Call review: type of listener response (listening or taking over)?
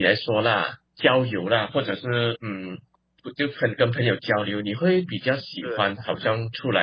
listening